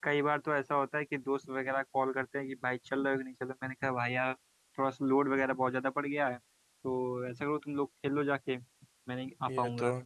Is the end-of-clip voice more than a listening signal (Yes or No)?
Yes